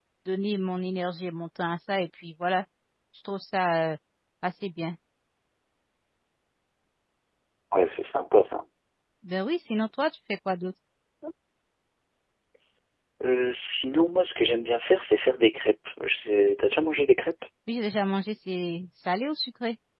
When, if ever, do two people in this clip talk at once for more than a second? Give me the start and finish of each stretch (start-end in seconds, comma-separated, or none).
none